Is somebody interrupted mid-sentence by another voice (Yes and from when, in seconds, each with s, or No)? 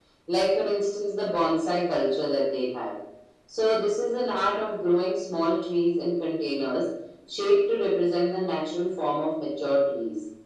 No